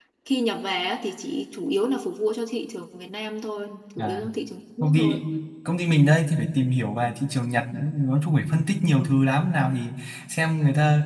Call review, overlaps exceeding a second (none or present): none